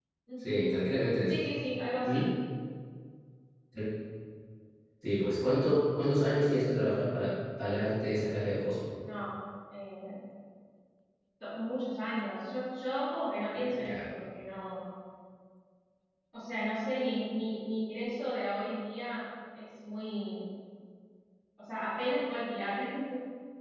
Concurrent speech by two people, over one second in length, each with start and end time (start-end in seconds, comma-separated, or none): none